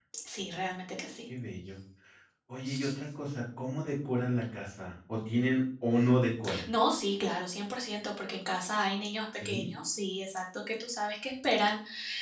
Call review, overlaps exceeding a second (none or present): none